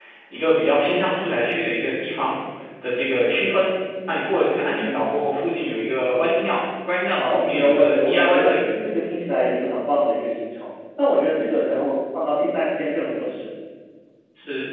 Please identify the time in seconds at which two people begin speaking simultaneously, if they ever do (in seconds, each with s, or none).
7.2 s